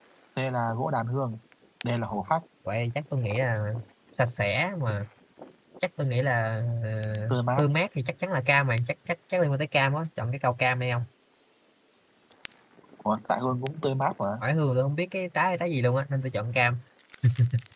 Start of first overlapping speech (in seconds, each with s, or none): none